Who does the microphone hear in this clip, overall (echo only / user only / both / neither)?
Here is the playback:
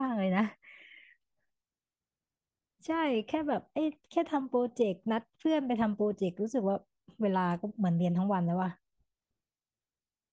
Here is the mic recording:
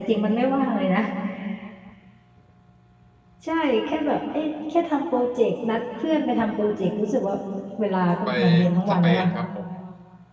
both